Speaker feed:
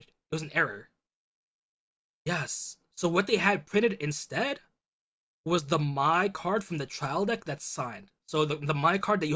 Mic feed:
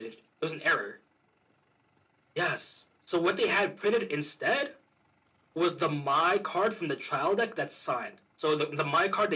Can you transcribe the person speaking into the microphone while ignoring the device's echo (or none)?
none